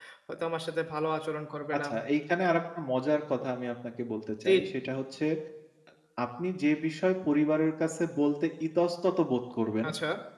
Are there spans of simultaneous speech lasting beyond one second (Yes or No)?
No